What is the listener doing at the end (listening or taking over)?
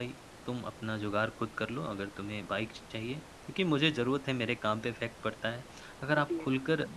listening